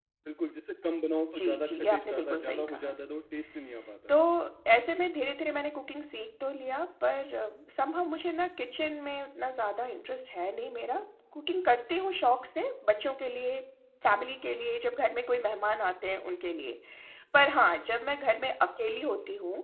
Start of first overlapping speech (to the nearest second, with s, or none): 1 s